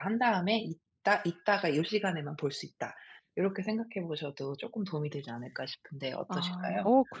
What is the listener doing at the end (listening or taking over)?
taking over